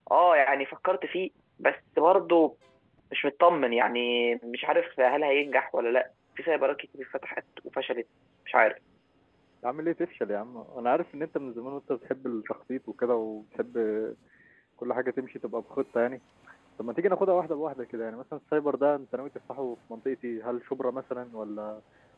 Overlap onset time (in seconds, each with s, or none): none